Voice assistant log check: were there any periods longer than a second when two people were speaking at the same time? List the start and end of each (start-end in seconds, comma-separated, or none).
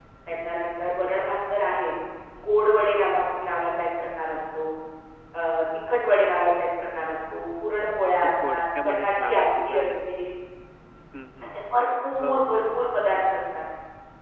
8.5-9.8